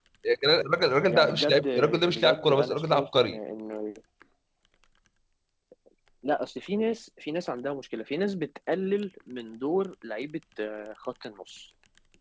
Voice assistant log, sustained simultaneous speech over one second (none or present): present